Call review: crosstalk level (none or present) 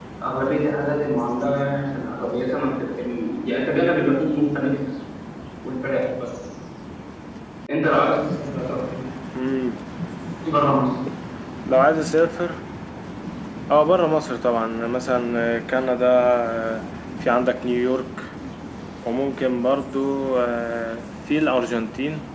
none